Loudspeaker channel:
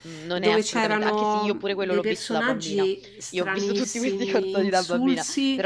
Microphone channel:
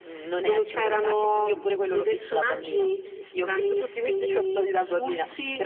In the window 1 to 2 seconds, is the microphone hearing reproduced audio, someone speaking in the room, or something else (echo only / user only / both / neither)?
echo only